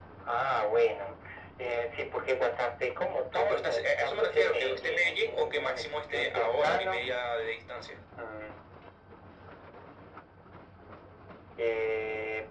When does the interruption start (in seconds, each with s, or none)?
3.3 s